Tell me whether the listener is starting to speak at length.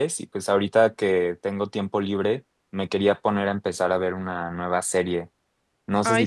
No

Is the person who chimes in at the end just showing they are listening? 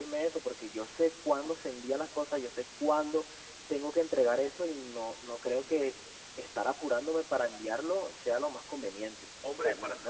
No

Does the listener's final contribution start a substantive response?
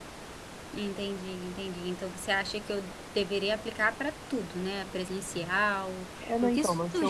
Yes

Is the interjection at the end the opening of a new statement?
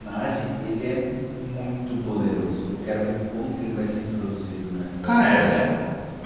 Yes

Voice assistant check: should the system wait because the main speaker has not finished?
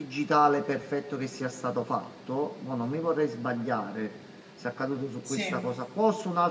Yes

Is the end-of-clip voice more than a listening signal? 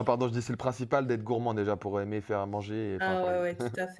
Yes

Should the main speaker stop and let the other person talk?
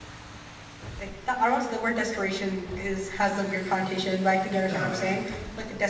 No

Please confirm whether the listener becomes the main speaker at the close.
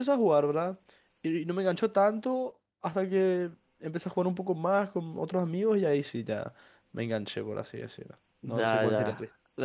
Yes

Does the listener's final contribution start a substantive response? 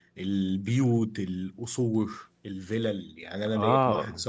No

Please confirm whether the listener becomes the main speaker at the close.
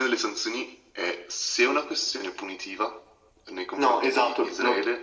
Yes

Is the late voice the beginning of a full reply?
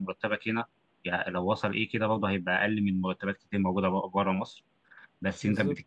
No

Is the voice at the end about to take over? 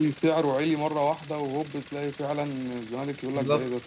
Yes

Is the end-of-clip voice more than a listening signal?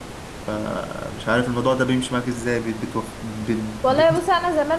Yes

